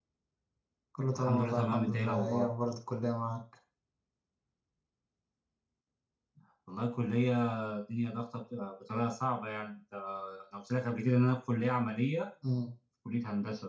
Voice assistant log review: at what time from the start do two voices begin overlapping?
1.2 s

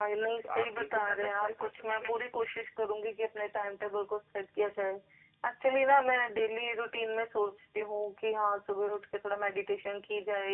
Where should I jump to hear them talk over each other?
0.6 s

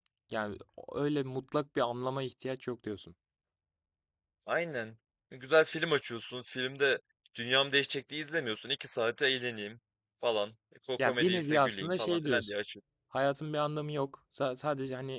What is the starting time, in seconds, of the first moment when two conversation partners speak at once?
11.0 s

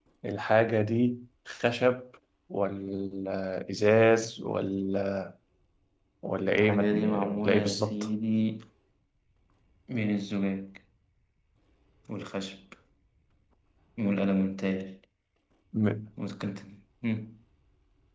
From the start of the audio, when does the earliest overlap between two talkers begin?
6.5 s

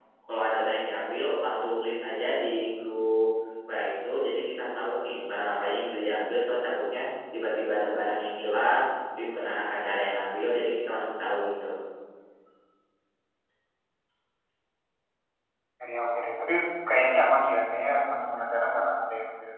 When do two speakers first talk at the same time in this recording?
none

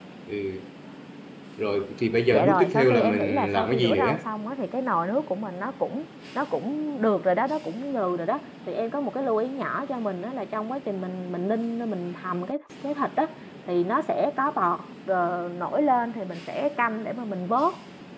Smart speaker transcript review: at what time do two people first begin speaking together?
2.3 s

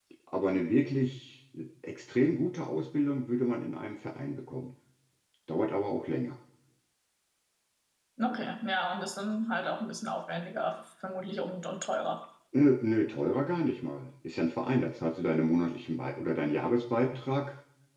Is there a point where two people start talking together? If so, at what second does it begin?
none

